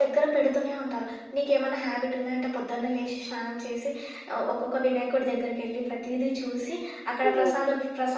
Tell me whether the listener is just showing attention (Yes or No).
Yes